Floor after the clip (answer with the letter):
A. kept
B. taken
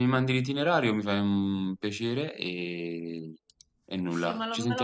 B